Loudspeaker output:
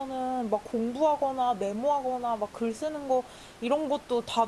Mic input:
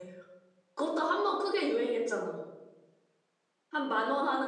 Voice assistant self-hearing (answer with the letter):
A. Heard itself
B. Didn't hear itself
B